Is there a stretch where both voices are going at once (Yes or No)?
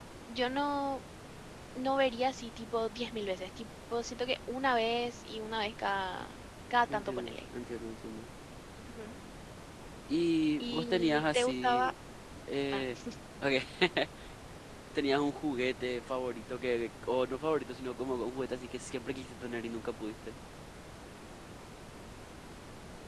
Yes